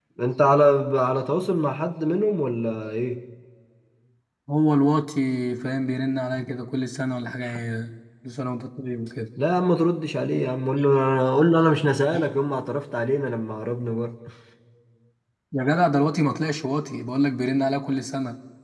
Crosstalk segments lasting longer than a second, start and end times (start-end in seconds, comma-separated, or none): none